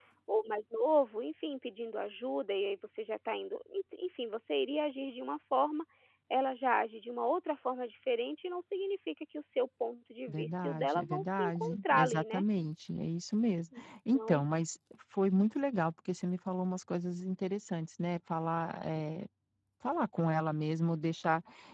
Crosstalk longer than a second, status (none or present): present